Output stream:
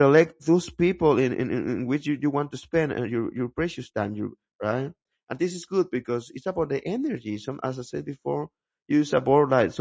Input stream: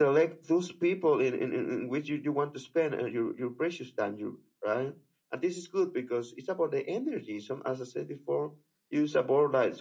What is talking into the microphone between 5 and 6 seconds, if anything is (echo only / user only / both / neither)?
echo only